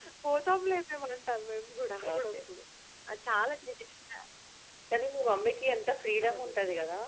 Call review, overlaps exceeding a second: none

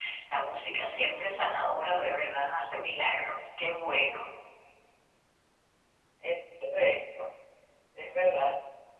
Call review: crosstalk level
none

